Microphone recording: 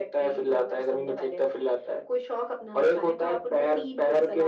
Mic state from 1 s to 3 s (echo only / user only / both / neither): echo only